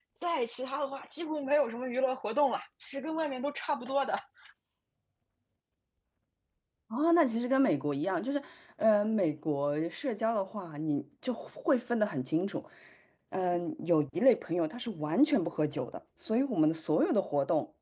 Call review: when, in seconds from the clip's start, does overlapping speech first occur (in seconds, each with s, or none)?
none